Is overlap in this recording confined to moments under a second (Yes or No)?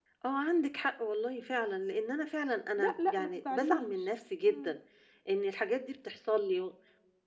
No